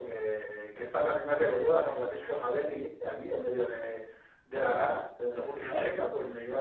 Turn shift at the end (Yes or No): No